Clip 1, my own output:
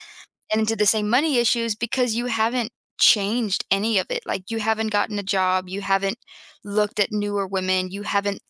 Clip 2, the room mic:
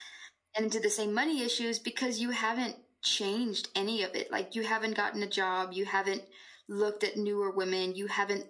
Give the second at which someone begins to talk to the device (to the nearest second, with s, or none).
none